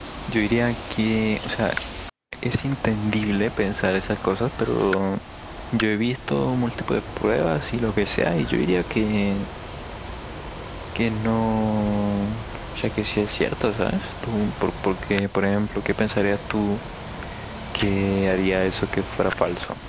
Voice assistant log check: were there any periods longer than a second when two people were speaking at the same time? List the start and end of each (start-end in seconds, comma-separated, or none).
none